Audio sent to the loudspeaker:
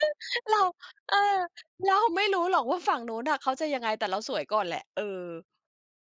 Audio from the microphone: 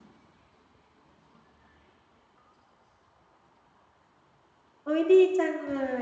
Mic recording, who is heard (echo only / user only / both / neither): user only